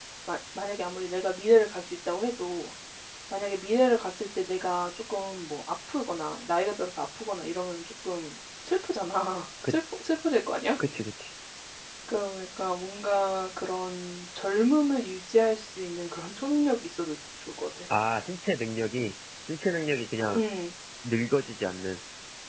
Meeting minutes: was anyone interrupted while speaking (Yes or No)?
No